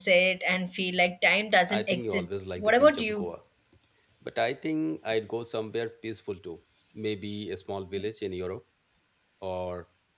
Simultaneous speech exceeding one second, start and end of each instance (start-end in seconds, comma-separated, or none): 1.7-3.3